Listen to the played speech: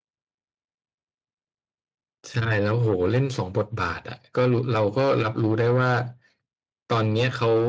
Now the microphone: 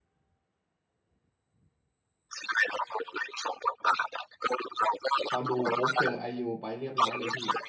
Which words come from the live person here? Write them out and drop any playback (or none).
พอดูปุ๊บเจอไอยูไปเรียบร้อยเลยพี่